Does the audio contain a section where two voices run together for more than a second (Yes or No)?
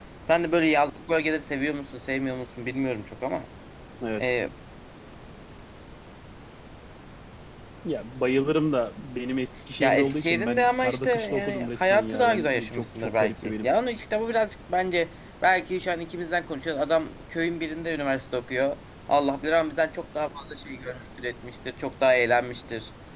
Yes